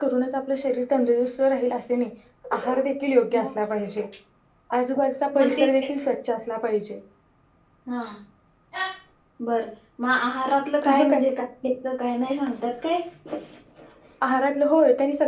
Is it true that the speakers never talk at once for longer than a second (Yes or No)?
Yes